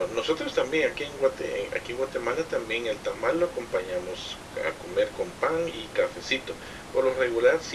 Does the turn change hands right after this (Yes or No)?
No